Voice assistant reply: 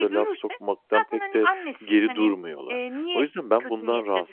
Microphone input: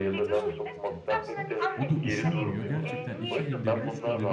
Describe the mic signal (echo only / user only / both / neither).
both